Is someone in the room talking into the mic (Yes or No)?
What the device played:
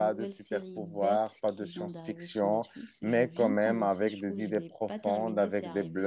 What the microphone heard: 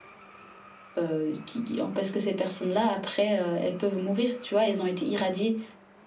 Yes